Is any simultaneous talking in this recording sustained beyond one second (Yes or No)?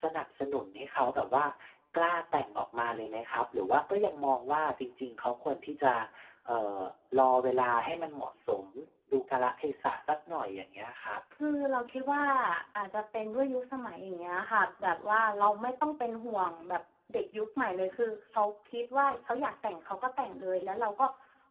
No